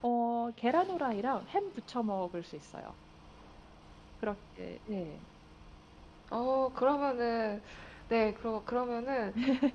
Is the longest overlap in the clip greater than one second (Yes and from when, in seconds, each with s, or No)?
No